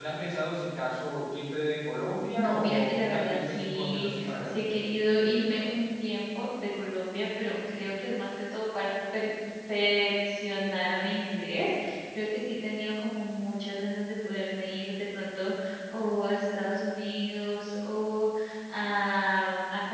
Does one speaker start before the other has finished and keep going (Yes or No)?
Yes